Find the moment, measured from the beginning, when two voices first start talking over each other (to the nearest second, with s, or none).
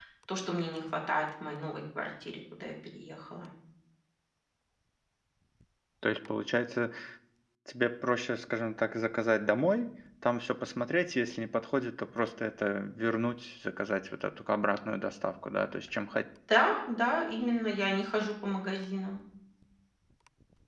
none